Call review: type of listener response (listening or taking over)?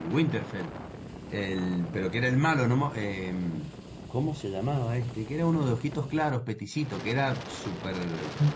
taking over